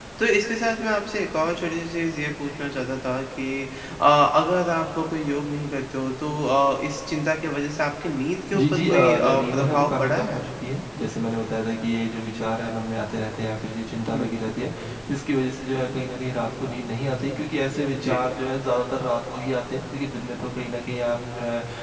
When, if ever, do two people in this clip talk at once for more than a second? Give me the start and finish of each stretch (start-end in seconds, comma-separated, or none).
8.6-10.4